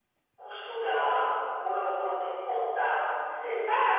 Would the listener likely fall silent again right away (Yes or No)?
No